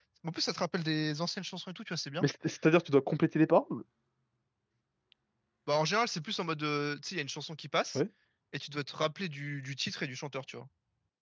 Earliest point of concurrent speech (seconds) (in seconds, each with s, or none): none